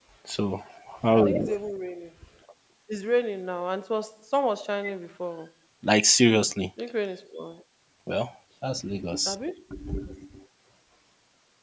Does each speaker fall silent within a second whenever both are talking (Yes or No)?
Yes